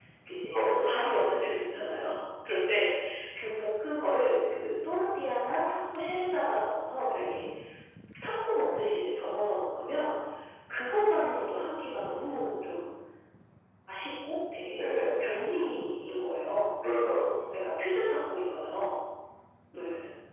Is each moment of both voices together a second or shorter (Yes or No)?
Yes